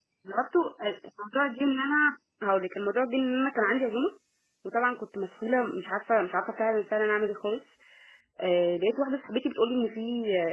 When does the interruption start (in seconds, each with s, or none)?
none